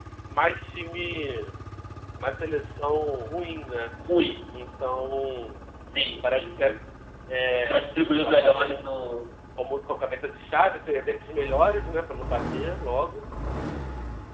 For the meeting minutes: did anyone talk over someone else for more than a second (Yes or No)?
Yes